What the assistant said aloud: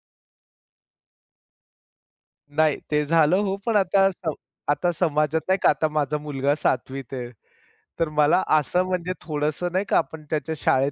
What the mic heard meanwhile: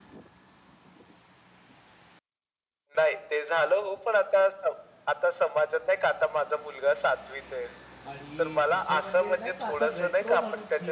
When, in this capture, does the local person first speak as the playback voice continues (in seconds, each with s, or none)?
8.1 s